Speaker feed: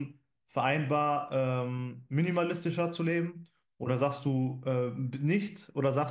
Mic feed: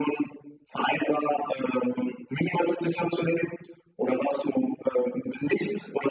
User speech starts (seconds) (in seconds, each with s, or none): none